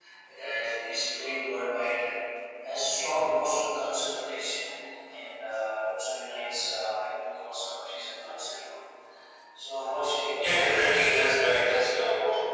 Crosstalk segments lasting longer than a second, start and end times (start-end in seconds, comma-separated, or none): none